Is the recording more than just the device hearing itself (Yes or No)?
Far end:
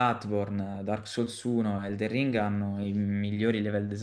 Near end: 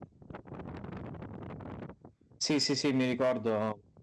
Yes